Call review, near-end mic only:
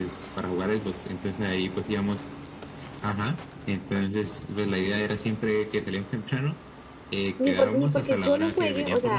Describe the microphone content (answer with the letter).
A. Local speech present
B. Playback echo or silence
A